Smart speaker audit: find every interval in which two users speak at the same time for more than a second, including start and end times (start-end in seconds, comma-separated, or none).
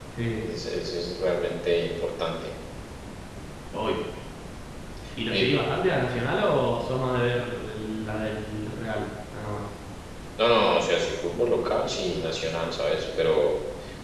none